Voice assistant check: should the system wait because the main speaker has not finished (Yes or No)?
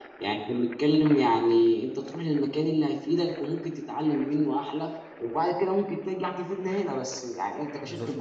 Yes